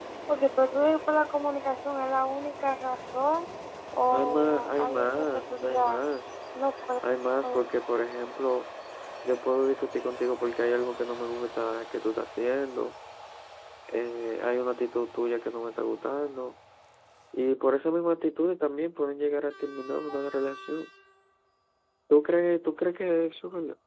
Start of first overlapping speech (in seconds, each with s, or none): 4.1 s